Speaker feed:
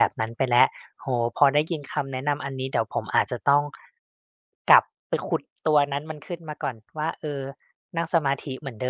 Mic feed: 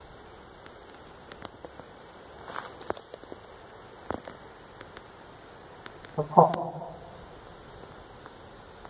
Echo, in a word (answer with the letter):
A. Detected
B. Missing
B